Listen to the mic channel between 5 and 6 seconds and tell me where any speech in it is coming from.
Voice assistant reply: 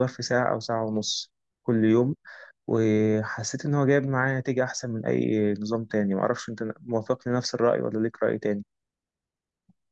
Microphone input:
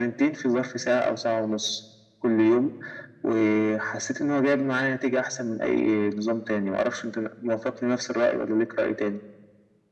echo only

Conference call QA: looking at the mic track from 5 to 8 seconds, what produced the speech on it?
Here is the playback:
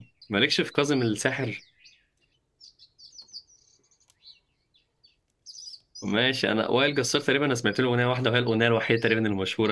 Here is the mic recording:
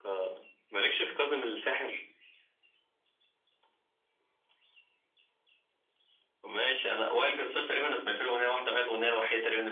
echo only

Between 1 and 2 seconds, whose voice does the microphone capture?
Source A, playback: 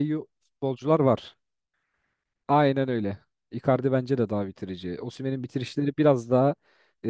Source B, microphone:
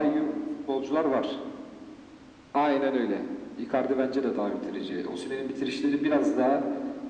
echo only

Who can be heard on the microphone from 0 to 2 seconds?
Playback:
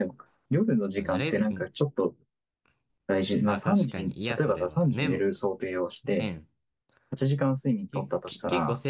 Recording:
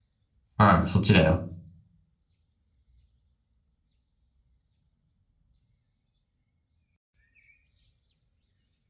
user only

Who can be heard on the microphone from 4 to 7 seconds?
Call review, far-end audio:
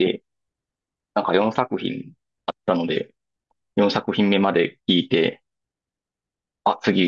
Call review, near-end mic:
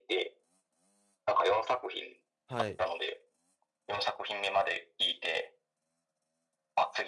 echo only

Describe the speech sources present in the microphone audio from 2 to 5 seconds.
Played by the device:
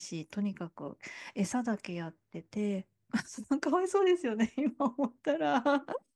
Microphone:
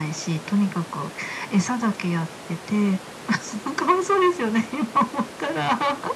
echo only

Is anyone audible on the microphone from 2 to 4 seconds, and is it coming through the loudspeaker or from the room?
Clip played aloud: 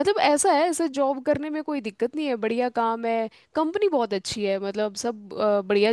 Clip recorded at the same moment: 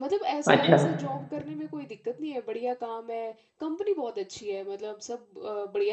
echo only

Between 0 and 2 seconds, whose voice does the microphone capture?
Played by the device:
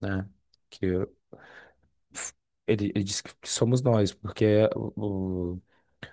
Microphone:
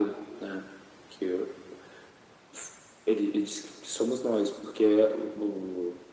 echo only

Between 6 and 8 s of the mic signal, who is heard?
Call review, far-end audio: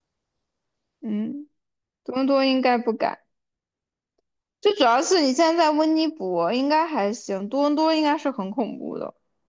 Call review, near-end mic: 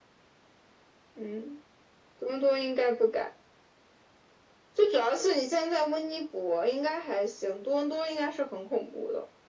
echo only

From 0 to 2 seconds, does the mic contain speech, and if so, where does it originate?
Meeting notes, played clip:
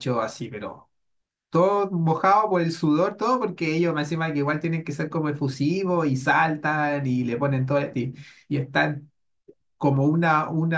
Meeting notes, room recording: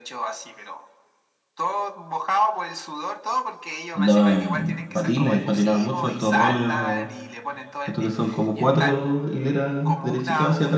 echo only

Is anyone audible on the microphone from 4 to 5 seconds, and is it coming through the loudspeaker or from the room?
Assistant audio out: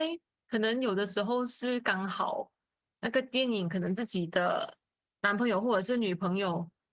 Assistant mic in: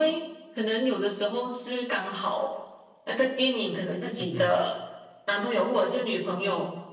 both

